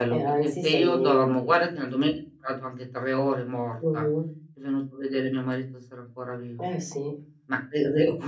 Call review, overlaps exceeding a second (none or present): present